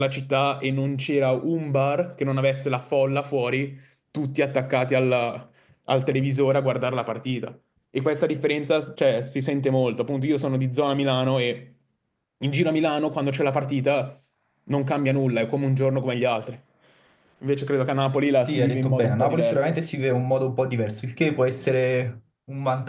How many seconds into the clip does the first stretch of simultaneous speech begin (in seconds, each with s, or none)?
18.4 s